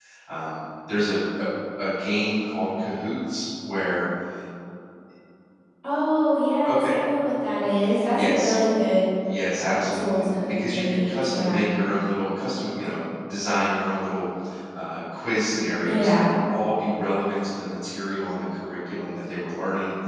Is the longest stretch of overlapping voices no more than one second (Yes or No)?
No